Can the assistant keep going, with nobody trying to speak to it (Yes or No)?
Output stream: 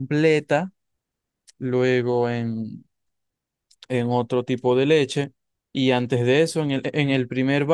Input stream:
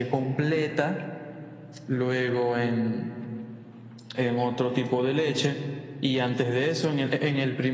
Yes